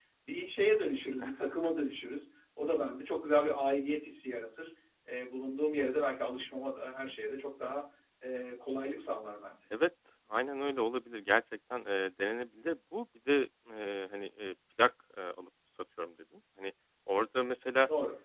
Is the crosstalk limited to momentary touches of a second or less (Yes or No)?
Yes